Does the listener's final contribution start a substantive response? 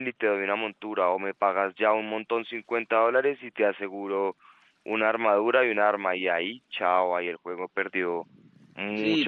Yes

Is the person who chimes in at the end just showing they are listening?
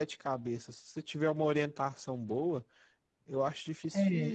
Yes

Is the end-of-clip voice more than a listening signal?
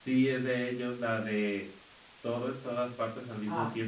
Yes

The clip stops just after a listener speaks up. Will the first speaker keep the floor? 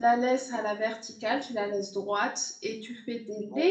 Yes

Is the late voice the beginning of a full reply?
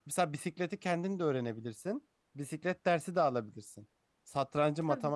No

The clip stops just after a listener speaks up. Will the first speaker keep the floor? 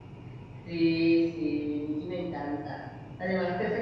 Yes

